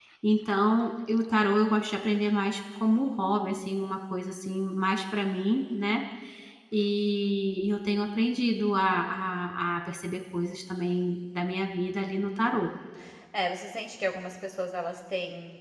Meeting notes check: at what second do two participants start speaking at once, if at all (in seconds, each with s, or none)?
none